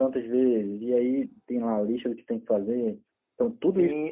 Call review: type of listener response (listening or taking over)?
taking over